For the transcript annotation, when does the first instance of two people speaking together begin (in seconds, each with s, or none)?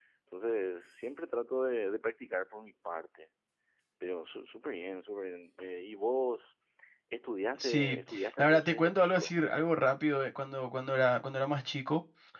7.6 s